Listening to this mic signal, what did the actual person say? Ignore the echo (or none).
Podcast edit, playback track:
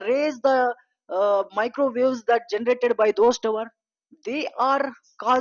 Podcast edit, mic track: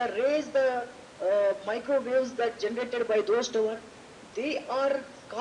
none